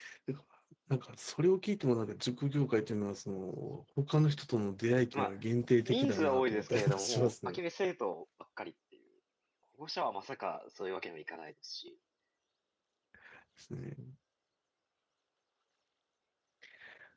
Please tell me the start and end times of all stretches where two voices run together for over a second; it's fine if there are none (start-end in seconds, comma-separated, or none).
5.9-7.6